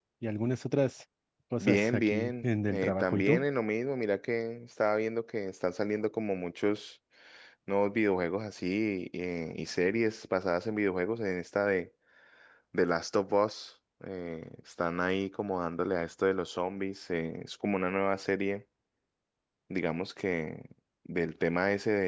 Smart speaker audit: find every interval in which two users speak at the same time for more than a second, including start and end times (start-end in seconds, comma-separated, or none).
1.6-3.5